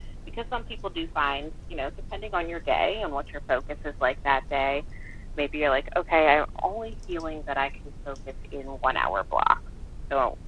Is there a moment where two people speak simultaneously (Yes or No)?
No